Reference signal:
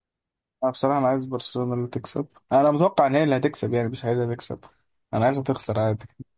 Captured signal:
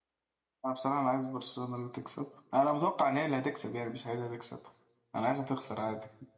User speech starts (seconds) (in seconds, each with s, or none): none